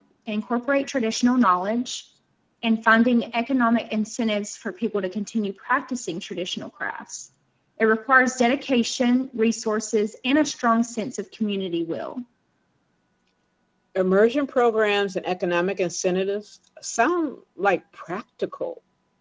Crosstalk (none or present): none